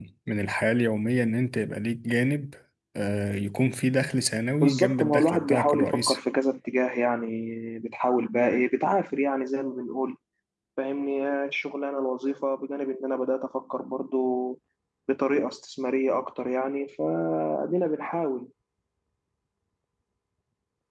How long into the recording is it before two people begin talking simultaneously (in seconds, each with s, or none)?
4.6 s